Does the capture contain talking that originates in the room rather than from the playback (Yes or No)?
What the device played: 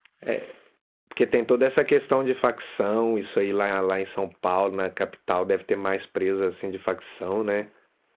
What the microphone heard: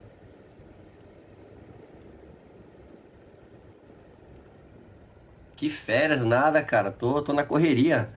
Yes